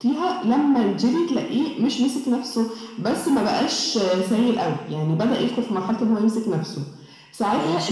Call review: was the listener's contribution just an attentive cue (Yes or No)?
Yes